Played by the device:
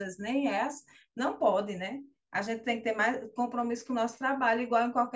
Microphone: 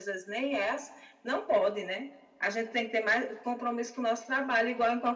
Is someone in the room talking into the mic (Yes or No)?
No